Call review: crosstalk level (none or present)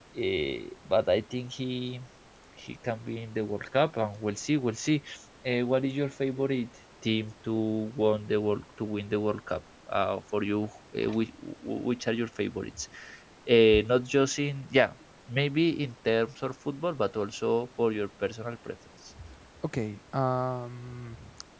none